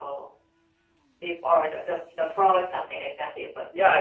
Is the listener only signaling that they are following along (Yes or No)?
No